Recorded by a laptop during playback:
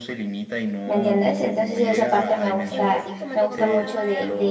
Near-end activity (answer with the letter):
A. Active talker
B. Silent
A